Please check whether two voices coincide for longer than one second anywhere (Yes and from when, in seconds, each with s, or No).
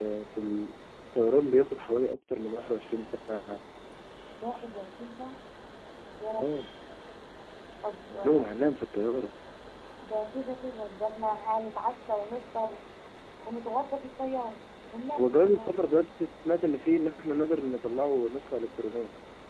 No